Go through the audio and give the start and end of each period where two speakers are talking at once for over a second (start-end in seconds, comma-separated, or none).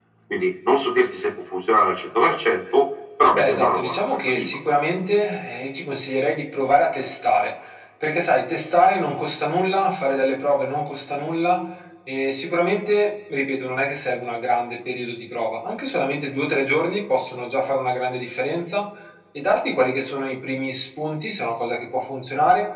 3.3-4.6